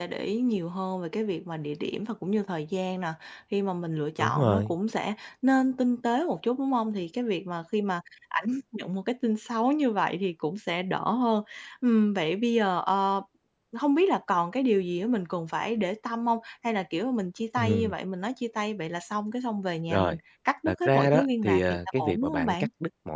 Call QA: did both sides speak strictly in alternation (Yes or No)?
No